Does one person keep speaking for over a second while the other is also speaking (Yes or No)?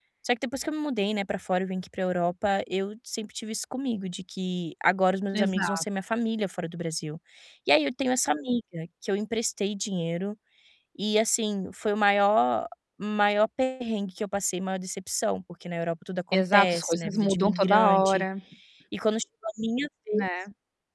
Yes